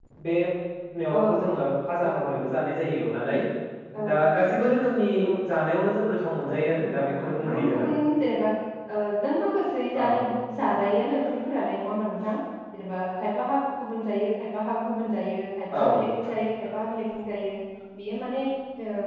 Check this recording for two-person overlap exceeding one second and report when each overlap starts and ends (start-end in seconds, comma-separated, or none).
6.5-7.8